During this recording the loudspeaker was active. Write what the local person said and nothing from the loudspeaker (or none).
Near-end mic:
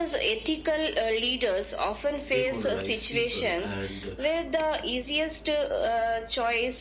demoralize people and